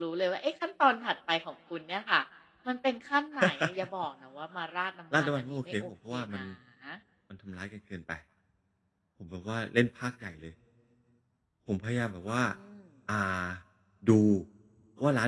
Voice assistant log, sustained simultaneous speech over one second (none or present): present